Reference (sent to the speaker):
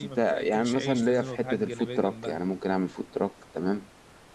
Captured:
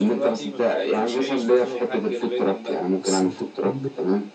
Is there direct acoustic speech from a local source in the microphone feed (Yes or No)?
Yes